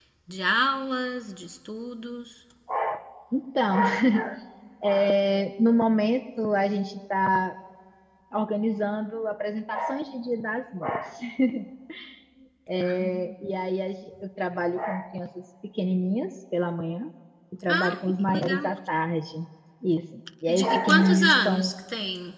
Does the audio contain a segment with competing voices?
Yes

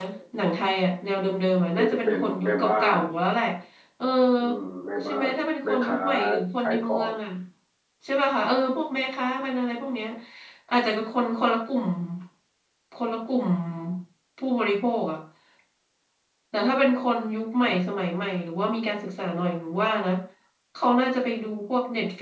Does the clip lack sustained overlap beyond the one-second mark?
No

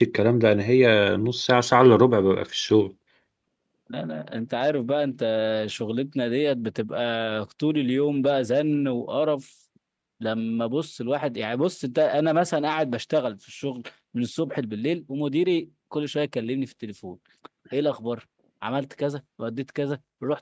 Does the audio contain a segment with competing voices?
No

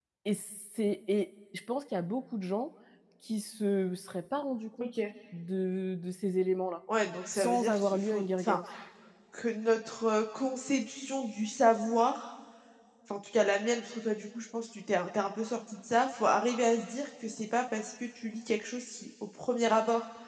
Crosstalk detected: Yes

